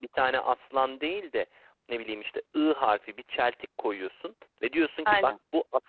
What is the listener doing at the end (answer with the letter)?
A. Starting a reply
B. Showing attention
B